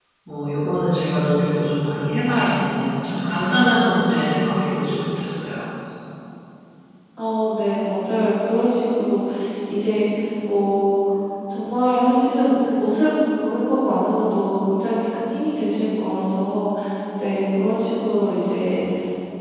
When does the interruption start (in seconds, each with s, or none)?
none